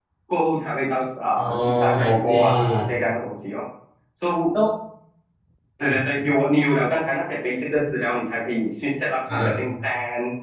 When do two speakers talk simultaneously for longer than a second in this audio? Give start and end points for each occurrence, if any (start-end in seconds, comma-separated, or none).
1.4-3.0